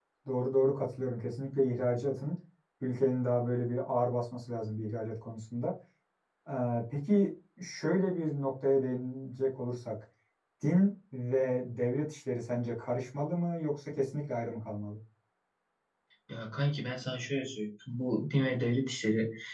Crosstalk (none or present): none